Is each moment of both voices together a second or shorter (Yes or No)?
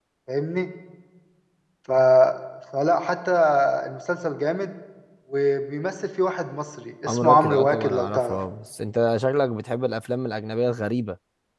No